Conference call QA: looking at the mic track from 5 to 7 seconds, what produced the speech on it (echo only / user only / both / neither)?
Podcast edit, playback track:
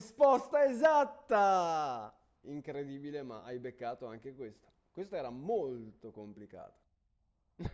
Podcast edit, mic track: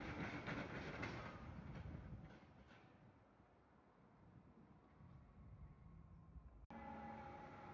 neither